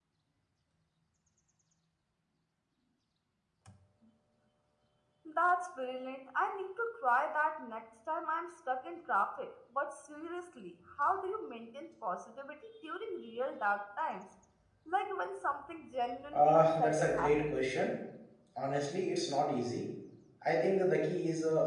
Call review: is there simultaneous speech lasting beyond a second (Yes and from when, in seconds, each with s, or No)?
Yes, from 16.2 s